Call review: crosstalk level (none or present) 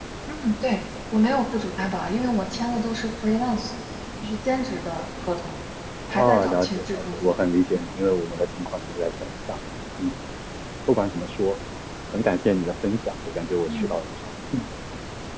present